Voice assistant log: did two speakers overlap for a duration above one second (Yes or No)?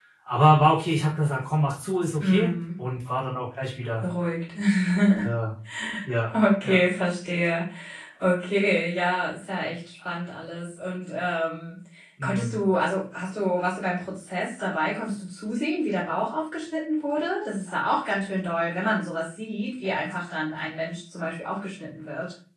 No